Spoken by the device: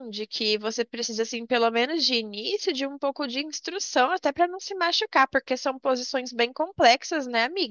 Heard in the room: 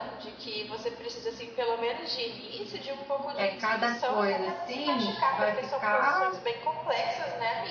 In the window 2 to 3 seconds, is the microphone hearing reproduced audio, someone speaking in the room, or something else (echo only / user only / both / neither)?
echo only